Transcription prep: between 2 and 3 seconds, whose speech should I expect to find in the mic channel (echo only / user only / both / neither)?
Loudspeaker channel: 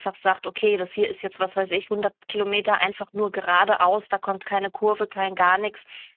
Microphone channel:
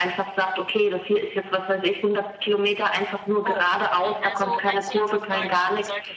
echo only